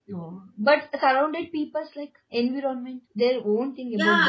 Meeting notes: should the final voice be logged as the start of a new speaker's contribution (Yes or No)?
Yes